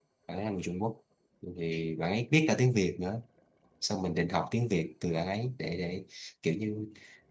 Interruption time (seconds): none

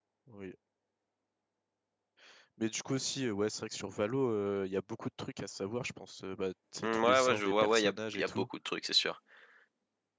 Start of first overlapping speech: 7 s

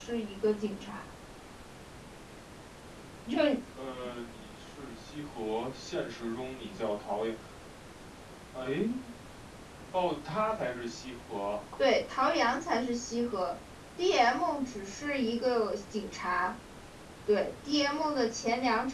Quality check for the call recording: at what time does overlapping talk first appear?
none

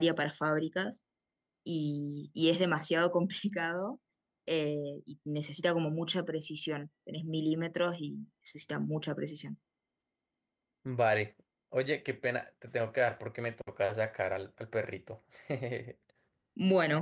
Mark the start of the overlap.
none

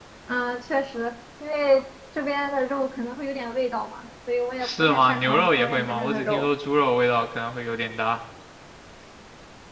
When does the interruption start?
5 s

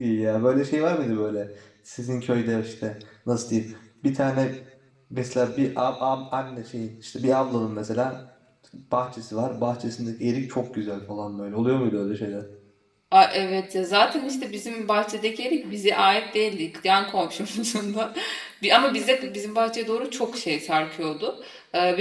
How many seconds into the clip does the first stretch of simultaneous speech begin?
none

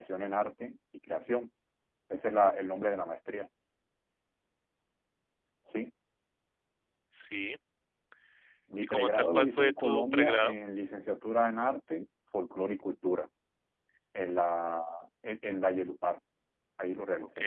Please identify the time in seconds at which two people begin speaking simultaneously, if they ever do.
9 s

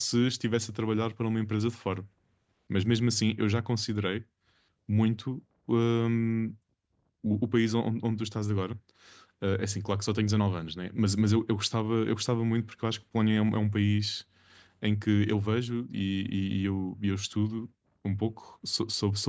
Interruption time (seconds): none

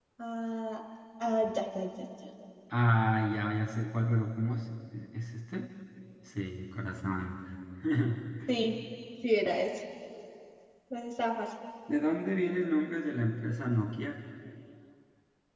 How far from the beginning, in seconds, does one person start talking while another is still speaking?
none

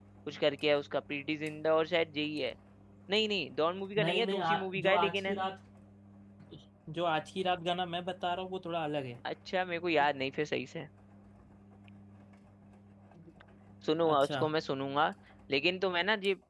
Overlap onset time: 4 s

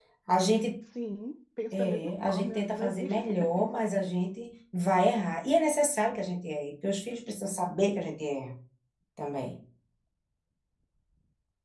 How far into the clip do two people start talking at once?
2 s

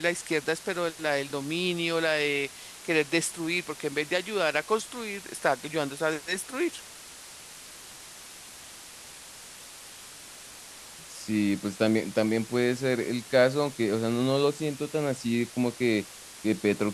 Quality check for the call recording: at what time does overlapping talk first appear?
none

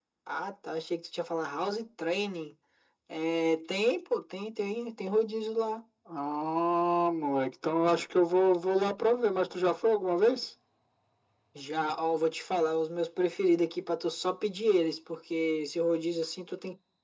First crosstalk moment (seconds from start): none

